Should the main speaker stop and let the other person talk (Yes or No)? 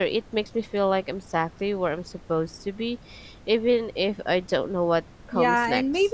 Yes